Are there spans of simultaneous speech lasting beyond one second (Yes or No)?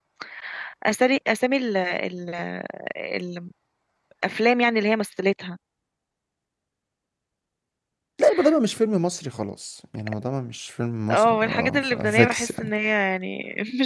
Yes